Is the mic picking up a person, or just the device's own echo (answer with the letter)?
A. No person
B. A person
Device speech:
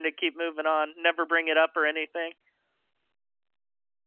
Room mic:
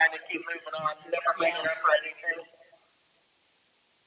B